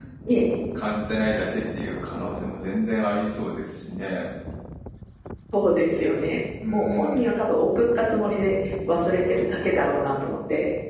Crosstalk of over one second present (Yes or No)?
No